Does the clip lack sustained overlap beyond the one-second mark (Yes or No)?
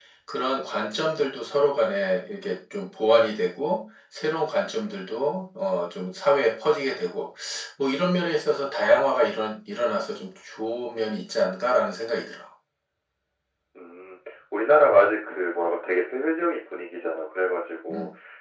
Yes